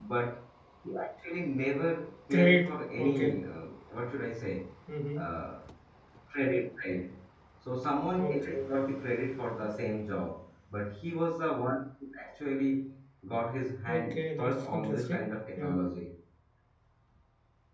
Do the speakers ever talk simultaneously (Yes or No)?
Yes